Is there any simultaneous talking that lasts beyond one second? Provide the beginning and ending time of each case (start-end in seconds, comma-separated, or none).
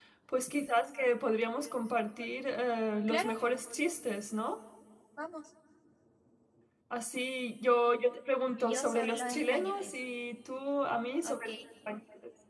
8.6-9.9